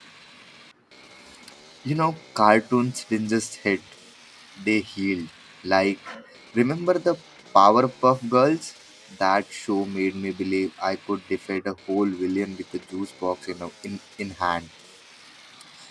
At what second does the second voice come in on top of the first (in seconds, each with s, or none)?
none